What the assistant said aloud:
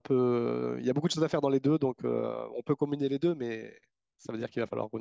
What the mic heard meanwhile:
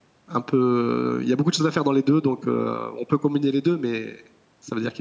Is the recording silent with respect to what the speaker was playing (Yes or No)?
No